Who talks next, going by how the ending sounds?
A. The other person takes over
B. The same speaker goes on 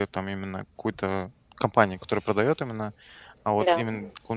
B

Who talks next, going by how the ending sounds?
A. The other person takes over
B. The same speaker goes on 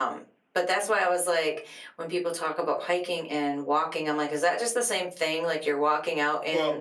B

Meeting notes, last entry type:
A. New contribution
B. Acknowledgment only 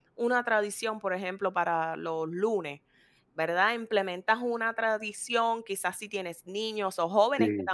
B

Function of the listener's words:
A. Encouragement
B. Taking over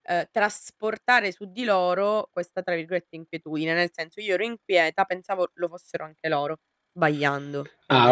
B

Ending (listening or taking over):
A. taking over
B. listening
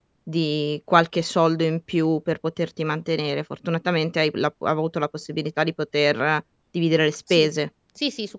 A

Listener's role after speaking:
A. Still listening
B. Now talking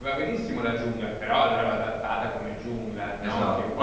B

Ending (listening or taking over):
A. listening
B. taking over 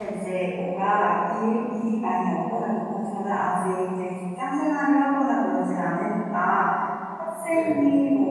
A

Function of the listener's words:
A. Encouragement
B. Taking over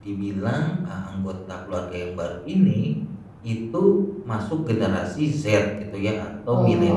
B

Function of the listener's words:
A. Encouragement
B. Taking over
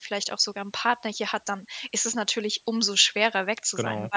A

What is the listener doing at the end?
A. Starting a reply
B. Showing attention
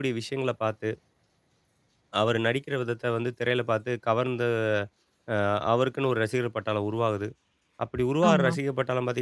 B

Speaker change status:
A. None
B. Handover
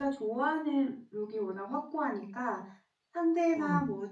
A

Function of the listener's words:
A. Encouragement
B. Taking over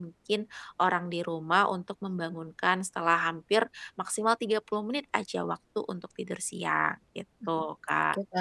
B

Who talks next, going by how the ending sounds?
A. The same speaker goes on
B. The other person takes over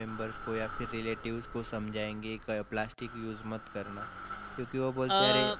A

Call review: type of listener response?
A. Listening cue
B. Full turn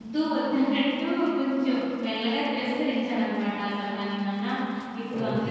A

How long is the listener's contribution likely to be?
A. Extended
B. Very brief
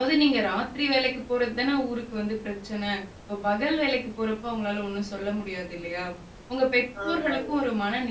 B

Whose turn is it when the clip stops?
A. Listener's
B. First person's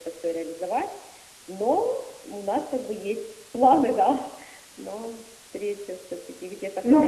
A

